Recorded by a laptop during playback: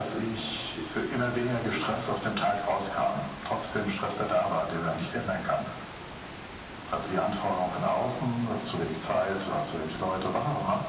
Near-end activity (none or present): none